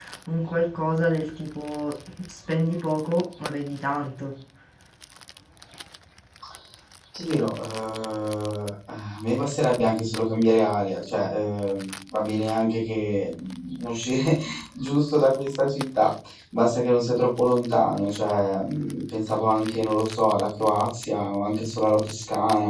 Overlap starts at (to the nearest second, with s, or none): none